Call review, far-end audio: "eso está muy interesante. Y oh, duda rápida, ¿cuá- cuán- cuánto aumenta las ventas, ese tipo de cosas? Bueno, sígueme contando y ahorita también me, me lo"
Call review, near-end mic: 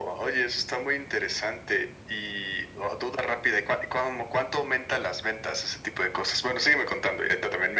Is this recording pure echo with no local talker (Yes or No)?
Yes